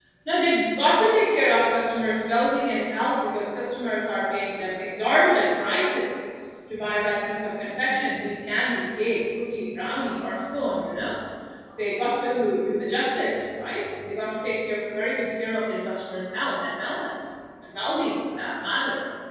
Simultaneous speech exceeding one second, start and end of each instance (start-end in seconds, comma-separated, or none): none